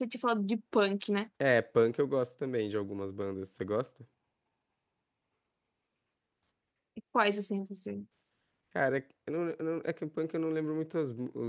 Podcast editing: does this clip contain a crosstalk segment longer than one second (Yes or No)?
No